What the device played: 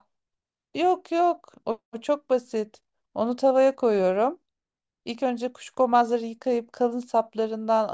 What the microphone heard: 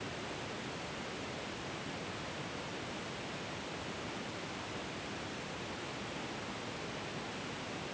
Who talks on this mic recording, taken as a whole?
neither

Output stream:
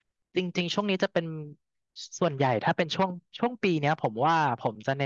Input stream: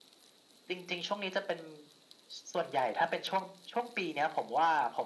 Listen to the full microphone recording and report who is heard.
echo only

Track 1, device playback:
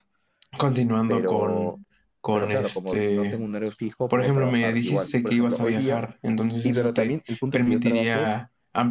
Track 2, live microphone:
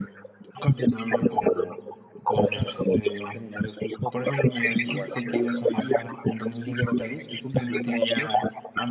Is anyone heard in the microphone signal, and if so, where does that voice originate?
echo only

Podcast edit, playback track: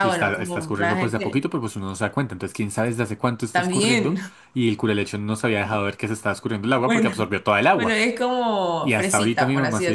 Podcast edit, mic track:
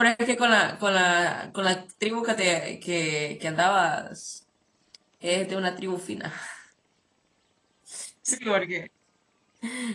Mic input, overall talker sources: user only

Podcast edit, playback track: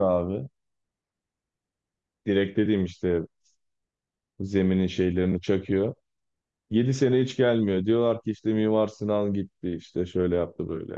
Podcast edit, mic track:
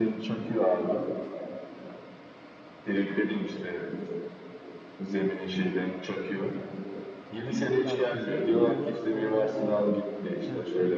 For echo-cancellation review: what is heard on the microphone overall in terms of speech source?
both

